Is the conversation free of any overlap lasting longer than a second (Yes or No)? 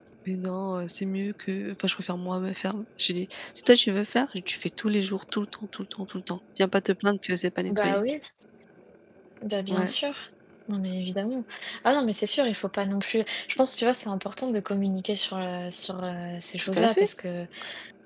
Yes